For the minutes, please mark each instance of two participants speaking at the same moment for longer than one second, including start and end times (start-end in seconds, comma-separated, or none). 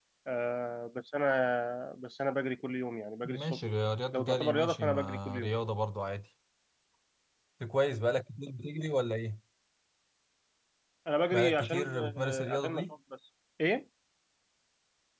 4.1-5.5, 11.3-12.9